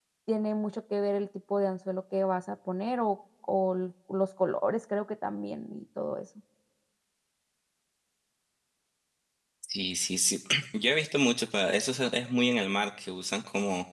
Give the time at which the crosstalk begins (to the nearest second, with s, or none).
none